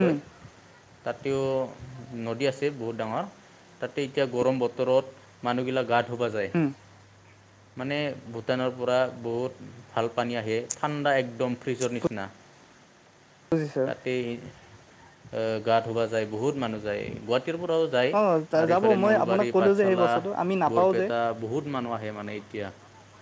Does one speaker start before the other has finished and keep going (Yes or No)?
Yes